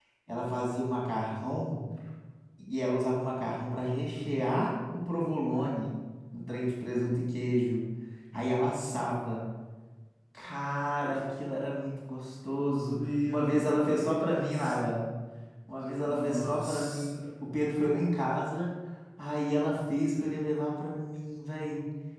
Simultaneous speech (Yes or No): Yes